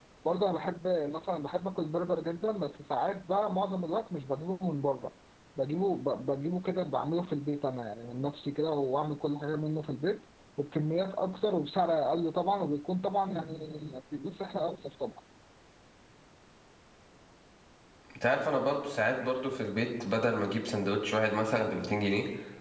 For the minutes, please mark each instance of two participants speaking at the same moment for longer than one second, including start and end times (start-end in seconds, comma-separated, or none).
none